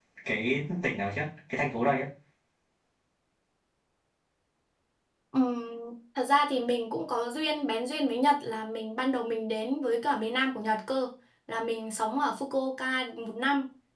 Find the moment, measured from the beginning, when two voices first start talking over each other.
none

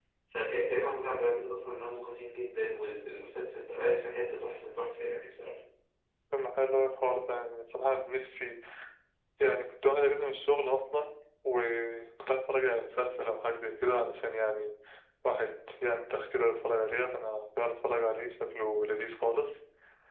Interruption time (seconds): none

